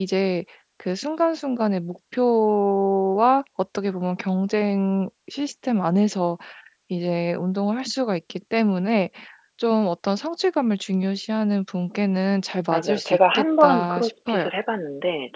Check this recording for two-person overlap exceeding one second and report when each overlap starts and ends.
12.7-14.5

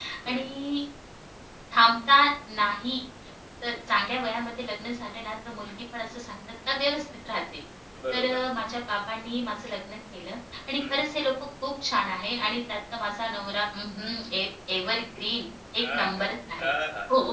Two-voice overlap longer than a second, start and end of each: none

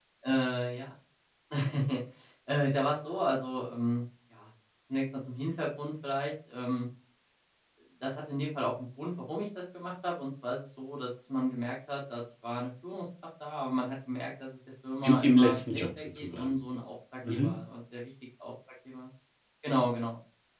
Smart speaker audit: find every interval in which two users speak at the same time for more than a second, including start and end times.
15.0-16.6

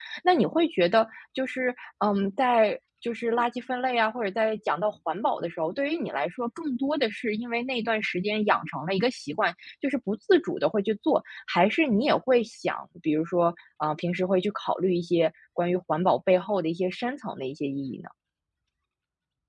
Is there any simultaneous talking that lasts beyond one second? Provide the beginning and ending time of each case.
none

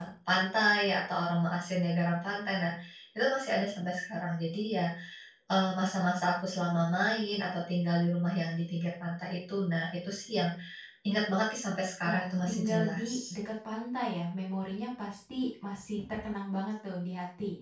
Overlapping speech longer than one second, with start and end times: 12.0-13.3

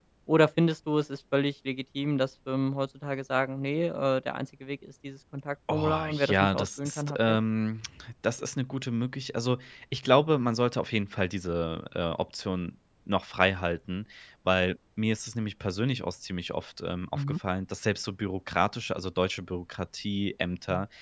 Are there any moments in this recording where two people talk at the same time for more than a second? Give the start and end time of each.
5.7-7.4

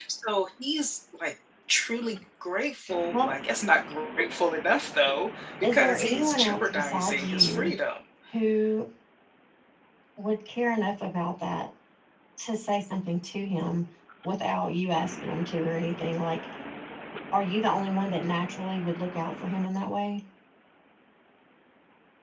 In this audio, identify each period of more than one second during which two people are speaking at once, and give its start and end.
5.6-7.7

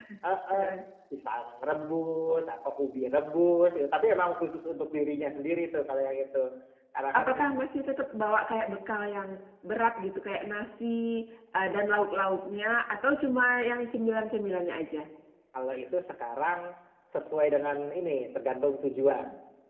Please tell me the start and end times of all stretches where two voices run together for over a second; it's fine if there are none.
none

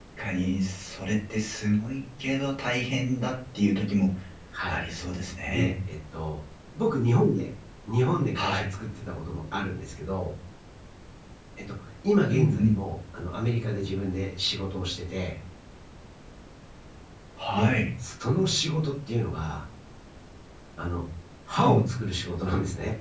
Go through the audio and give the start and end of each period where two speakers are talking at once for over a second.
none

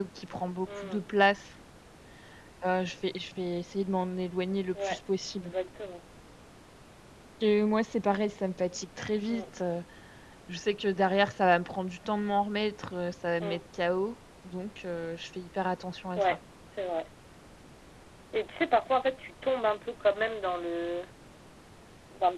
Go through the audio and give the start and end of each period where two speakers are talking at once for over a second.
none

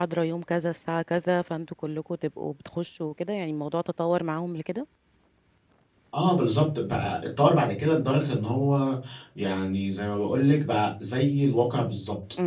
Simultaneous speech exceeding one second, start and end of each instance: none

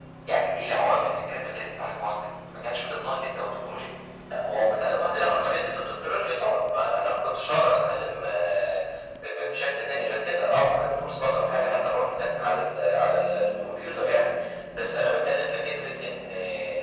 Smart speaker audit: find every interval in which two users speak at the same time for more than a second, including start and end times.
none

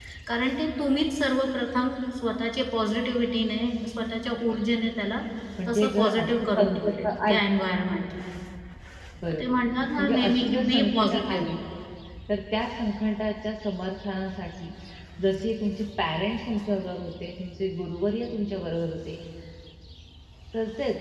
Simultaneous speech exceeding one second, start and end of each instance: 5.7-7.4, 10.0-11.5

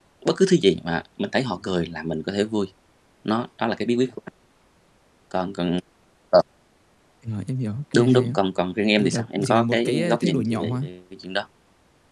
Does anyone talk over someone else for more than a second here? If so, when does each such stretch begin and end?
9.0-10.8

